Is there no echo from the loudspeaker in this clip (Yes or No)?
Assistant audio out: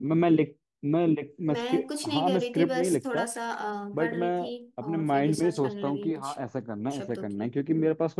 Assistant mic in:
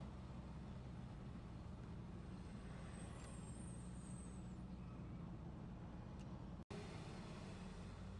Yes